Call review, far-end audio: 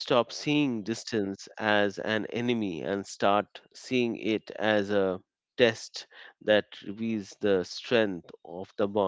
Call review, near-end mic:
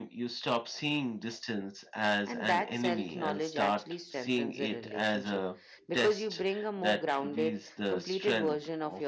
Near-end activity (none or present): present